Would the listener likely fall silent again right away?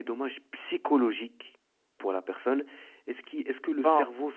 Yes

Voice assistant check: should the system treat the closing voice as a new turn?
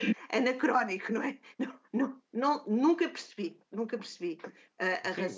Yes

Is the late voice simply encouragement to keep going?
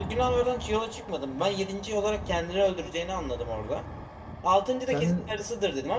Yes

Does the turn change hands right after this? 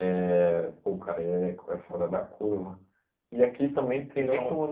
No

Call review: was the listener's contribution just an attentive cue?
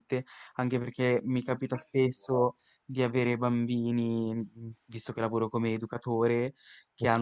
Yes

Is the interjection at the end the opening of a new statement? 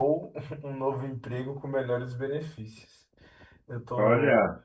No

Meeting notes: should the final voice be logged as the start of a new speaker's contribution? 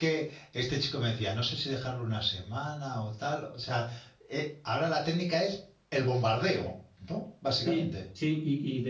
Yes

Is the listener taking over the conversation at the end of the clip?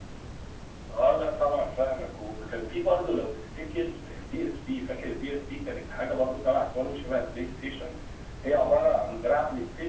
No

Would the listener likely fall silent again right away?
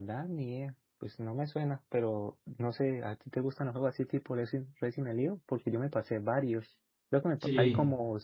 Yes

